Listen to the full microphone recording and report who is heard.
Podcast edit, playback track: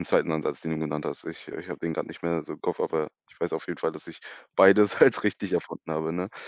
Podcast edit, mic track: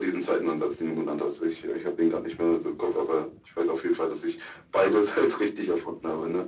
echo only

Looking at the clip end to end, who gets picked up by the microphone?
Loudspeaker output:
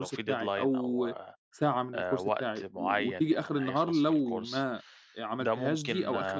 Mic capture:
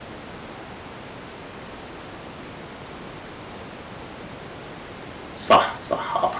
user only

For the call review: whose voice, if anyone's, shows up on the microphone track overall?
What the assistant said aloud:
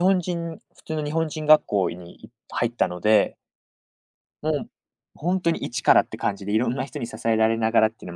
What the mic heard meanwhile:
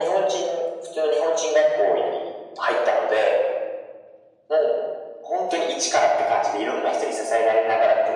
echo only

